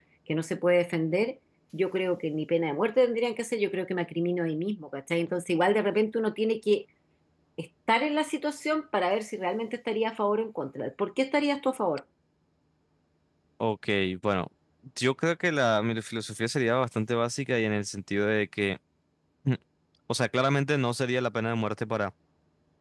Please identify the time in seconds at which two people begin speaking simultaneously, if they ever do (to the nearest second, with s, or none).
none